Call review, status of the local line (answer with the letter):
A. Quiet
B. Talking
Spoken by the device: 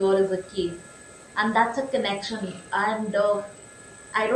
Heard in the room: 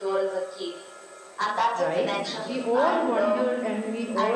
B